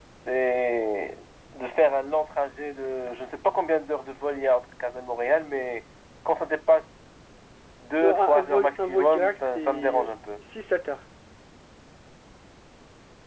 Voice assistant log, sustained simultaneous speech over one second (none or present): present